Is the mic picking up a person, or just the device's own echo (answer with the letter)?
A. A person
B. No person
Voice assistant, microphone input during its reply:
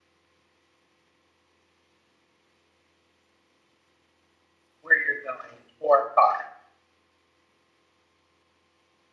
A